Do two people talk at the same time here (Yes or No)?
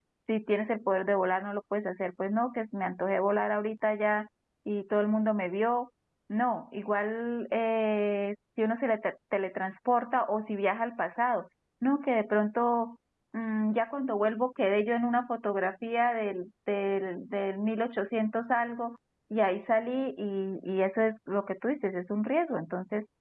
No